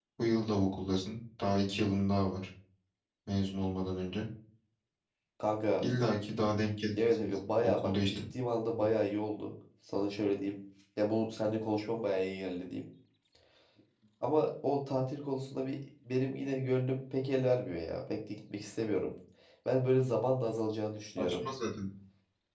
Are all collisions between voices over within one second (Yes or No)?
No